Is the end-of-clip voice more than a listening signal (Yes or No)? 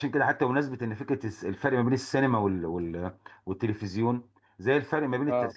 No